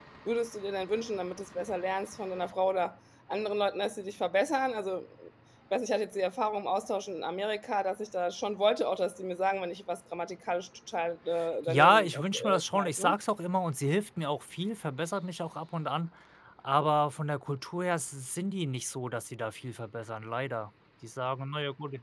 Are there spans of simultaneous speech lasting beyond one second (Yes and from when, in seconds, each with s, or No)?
Yes, from 11.7 s